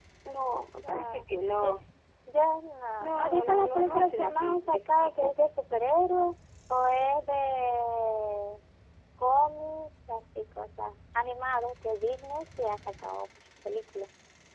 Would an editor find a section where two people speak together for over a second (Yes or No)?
Yes